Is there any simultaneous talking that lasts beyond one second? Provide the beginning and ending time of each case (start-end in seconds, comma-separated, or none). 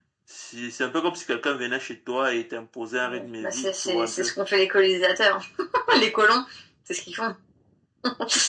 3.0-4.3